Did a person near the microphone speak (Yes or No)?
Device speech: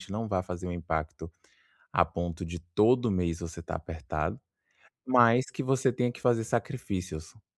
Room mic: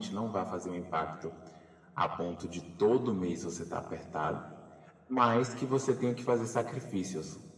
No